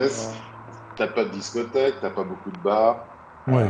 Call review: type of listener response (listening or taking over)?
listening